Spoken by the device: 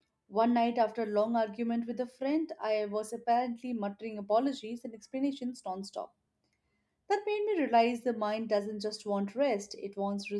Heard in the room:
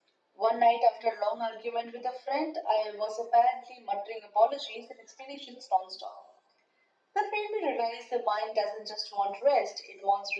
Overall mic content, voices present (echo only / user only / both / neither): echo only